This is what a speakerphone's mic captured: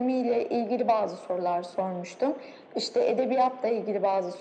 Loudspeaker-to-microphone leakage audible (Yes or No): Yes